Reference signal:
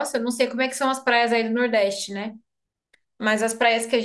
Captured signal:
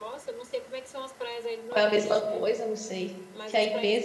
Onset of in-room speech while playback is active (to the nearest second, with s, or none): 2 s